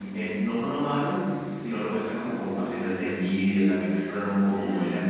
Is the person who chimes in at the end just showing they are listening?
Yes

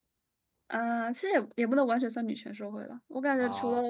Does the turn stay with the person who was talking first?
Yes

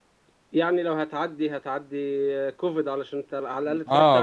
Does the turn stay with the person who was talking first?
No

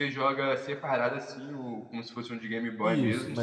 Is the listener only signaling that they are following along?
No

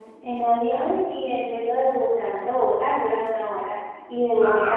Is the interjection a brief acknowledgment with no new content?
Yes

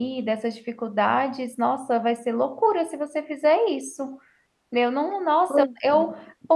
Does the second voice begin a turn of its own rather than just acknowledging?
No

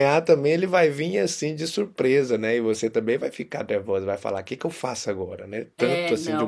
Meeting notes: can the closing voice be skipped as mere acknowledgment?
No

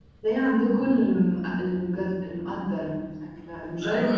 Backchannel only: No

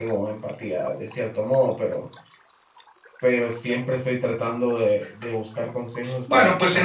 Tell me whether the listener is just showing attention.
No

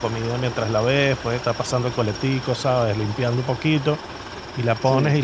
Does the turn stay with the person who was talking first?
Yes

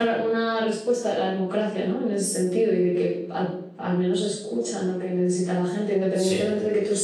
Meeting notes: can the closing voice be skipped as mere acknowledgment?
Yes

